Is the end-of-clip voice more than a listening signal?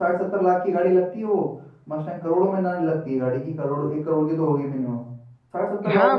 Yes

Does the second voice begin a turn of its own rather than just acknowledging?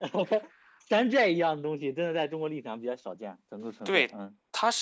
Yes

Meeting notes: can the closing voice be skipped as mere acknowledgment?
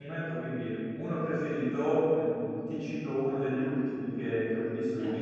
Yes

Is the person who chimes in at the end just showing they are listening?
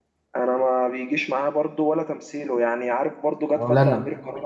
Yes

